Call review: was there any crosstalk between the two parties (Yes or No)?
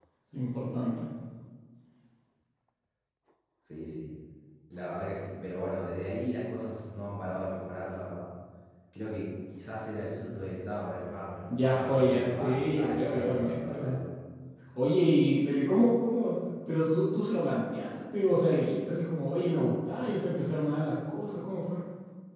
Yes